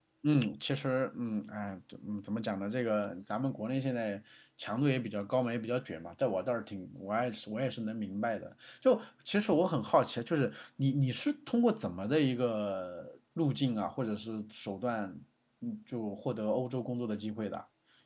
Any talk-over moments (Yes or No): No